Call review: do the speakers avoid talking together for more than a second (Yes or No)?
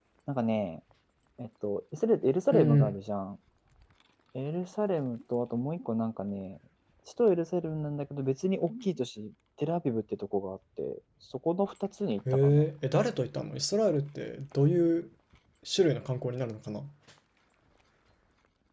Yes